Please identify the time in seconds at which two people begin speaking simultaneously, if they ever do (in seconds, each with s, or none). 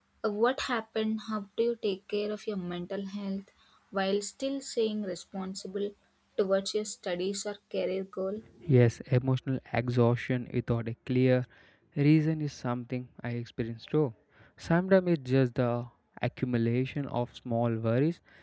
none